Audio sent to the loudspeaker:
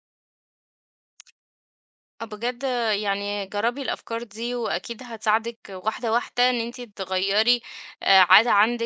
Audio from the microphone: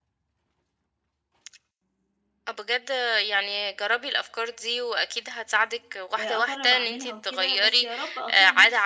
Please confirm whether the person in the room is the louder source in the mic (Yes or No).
No